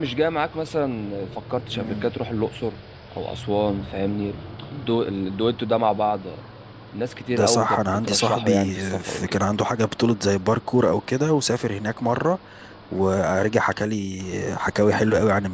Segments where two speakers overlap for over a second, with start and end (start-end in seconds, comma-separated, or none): 7.3-9.4